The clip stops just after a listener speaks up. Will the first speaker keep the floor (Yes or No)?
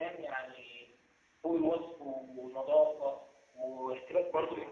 Yes